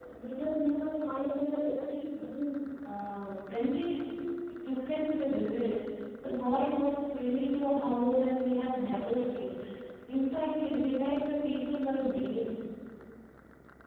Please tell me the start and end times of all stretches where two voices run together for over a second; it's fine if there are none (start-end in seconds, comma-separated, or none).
none